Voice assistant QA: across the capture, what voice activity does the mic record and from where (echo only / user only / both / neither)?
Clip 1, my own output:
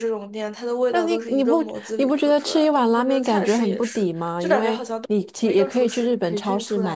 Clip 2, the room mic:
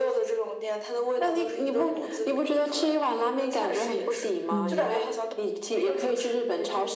both